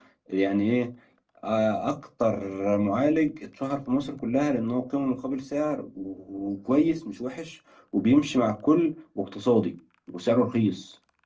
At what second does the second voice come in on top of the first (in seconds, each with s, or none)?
none